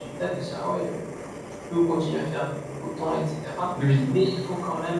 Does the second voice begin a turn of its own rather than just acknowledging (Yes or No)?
No